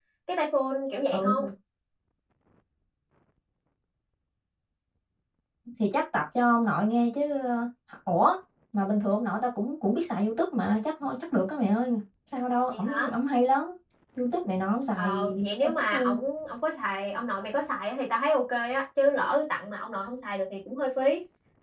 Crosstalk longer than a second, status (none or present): present